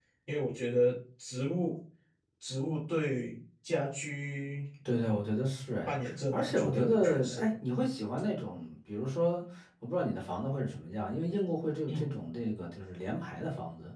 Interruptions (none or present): present